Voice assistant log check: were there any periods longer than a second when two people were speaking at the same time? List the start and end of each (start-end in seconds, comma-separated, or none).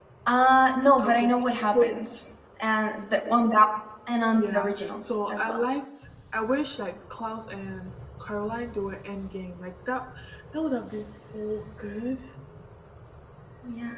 4.4-5.6